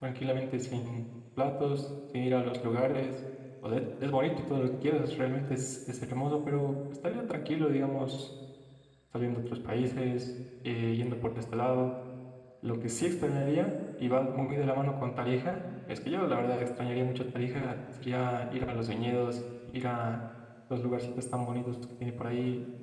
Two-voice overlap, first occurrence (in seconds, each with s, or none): none